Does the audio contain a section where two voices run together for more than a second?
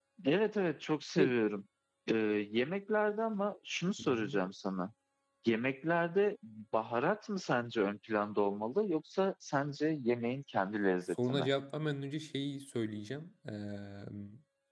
No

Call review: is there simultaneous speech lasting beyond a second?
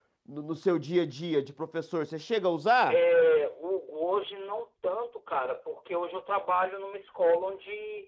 No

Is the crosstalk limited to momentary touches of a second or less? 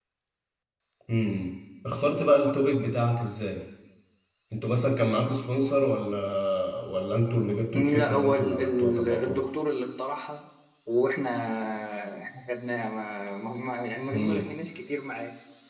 No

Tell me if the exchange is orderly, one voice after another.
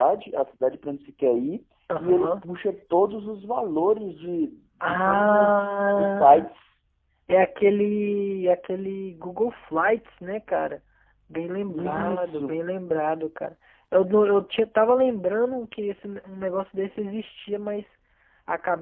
No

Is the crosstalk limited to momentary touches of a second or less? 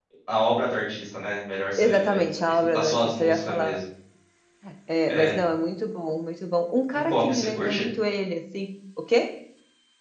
No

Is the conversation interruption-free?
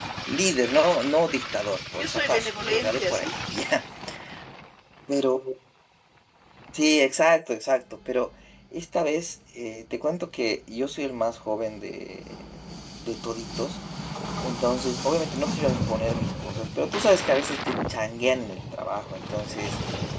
No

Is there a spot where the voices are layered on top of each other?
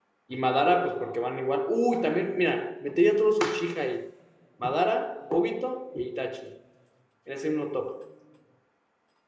No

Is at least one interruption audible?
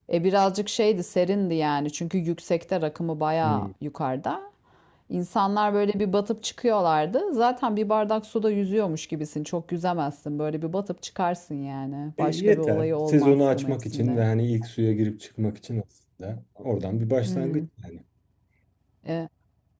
Yes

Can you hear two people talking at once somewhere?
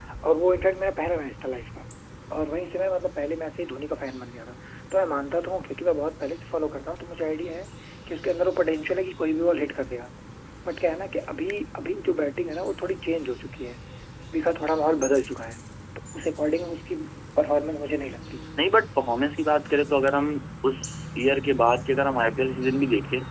No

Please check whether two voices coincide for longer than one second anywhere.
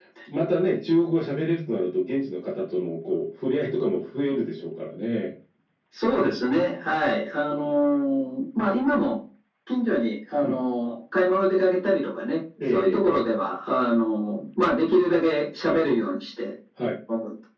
No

